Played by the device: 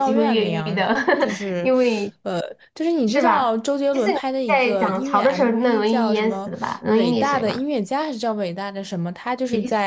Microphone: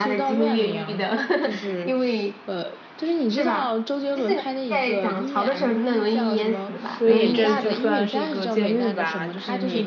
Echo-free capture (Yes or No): No